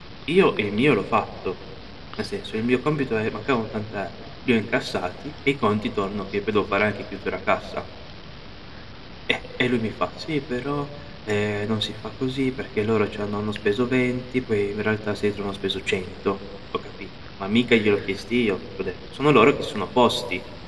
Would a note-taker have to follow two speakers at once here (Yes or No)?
No